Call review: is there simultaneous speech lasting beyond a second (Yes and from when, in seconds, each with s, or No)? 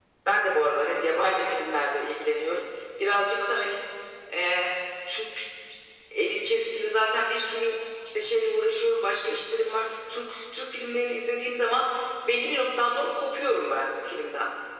No